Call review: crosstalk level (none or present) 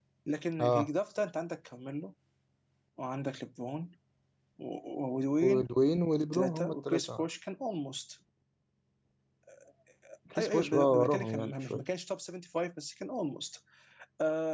present